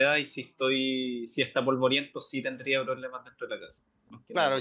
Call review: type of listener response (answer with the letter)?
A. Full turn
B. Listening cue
A